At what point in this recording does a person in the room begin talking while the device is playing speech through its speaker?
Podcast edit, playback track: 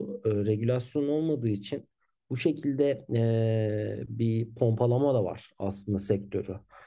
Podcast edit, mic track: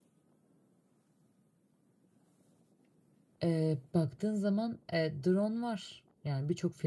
3.4 s

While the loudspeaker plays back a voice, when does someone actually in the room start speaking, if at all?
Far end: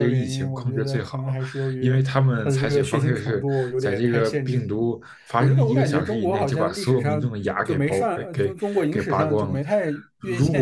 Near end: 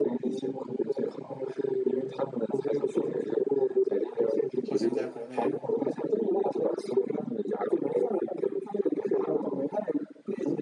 4.6 s

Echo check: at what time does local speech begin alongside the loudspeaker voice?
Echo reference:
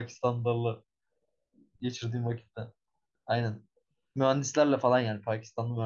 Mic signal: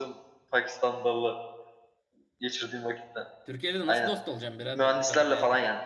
3.4 s

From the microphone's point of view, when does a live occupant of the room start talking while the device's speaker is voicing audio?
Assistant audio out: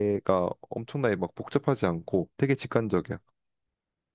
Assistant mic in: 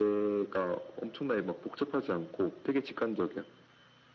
none

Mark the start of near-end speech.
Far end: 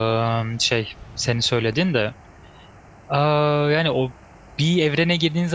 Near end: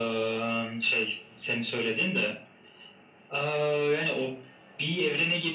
none

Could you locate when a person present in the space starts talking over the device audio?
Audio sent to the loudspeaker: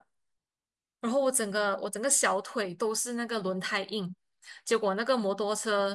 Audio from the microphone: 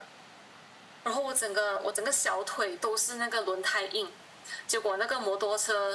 none

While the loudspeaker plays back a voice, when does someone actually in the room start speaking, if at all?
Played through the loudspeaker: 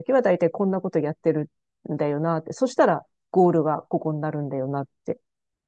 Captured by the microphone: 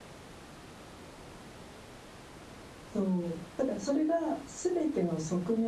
2.9 s

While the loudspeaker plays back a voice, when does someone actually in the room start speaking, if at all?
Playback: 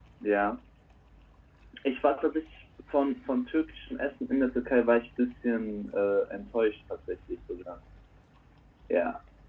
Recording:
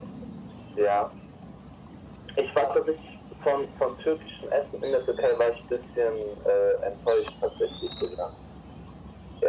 none

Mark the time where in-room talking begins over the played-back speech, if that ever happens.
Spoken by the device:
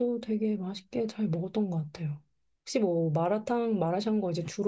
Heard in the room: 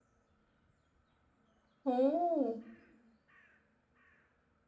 1.8 s

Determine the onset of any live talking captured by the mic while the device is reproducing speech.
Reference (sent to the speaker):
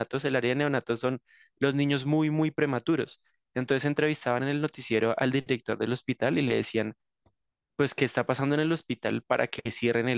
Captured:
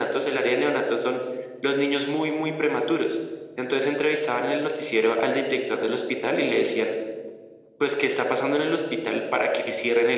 none

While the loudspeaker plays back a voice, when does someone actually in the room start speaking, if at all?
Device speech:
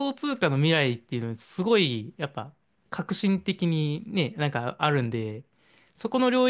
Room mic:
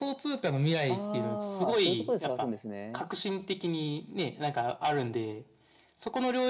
0.8 s

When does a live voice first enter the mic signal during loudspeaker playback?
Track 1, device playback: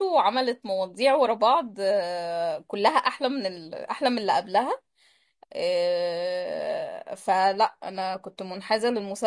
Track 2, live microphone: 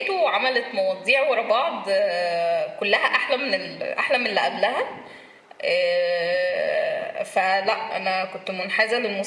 none

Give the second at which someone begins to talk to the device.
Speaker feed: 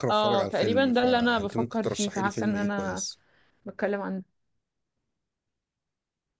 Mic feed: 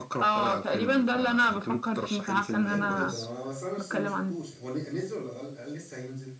2.6 s

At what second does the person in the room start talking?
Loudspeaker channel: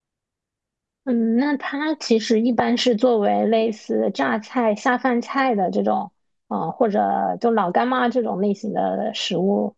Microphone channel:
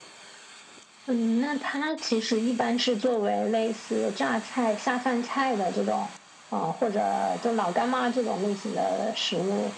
none

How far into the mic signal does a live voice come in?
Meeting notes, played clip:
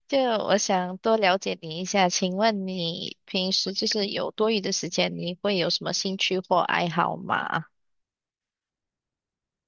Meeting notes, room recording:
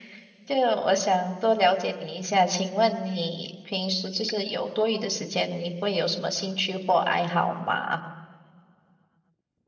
none

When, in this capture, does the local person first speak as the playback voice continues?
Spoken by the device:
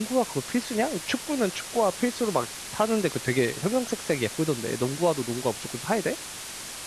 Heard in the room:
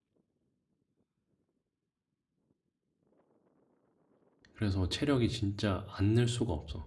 4.5 s

